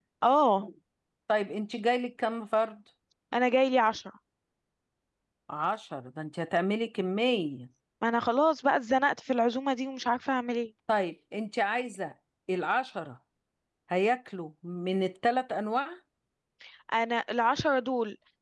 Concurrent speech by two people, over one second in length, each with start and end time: none

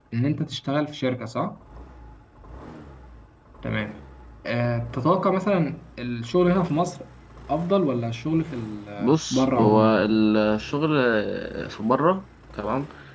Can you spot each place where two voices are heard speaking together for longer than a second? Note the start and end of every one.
9.0-10.2

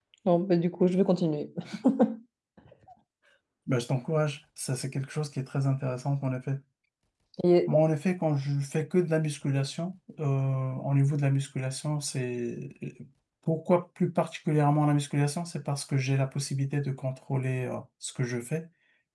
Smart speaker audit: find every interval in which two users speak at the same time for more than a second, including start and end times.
none

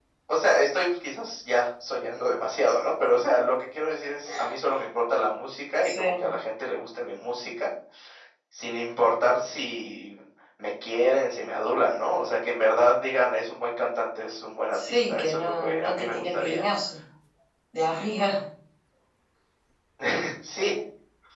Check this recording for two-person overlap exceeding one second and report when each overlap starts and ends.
14.7-16.6

